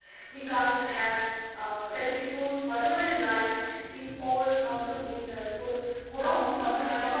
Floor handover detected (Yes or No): Yes